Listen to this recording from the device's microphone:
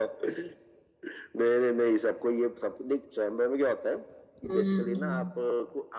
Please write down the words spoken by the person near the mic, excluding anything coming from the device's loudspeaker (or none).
हम्म